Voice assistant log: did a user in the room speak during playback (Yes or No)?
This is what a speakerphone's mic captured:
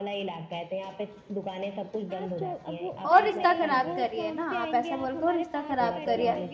Yes